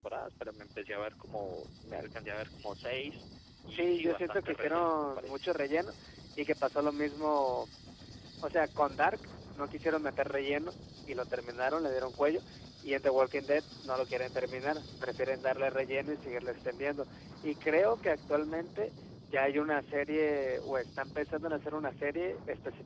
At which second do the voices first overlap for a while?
3.7 s

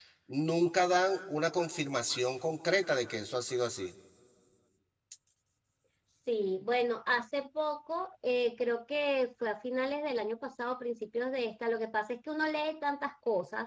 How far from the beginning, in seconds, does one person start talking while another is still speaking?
none

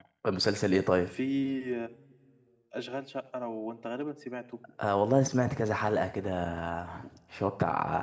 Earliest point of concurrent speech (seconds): none

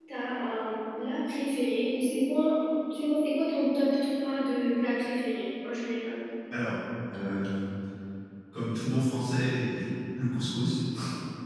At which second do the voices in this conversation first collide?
none

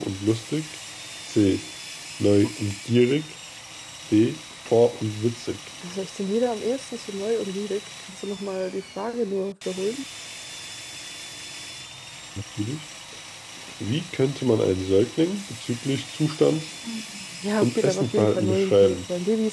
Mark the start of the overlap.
17.6 s

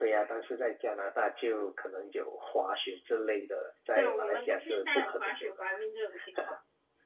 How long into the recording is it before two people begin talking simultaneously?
4.0 s

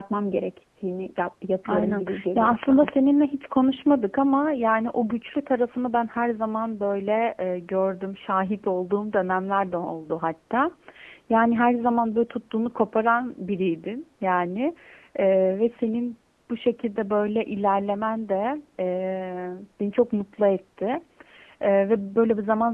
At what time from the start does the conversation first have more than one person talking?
1.6 s

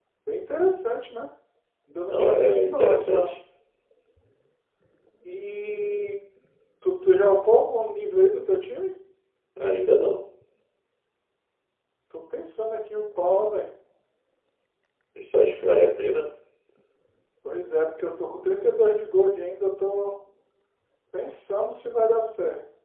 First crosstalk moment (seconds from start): 2.1 s

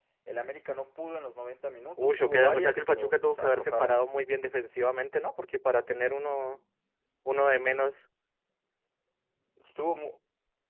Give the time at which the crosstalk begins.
2.0 s

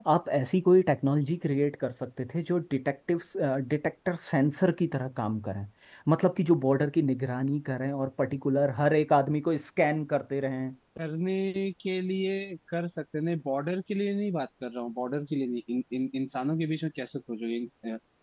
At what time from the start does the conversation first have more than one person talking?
none

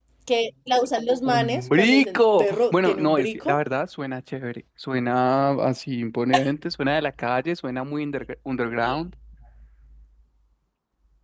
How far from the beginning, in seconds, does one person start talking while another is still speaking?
1.2 s

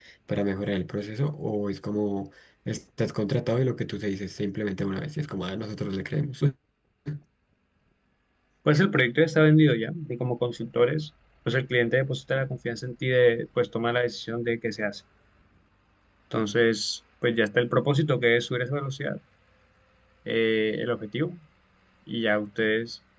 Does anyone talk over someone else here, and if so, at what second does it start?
none

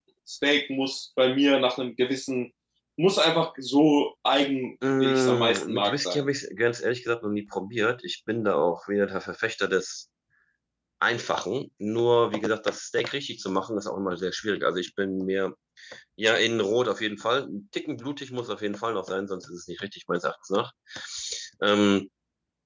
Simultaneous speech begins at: 4.8 s

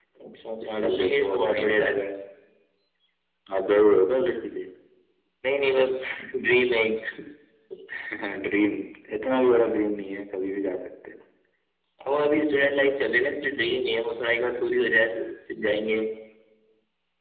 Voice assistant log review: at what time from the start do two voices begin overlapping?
0.6 s

